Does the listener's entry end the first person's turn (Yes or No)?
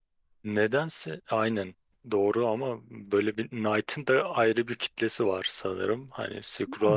Yes